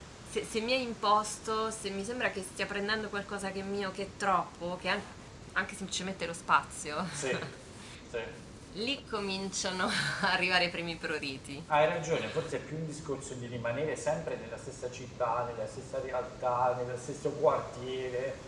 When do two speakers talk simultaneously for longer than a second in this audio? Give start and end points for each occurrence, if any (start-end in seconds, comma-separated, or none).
none